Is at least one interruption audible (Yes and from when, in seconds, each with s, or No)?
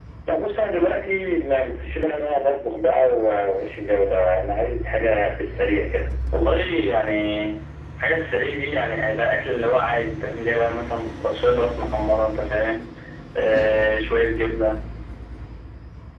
No